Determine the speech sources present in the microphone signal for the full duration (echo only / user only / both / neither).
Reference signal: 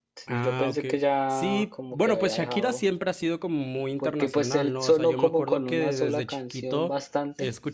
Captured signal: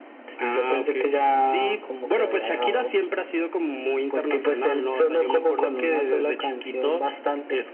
echo only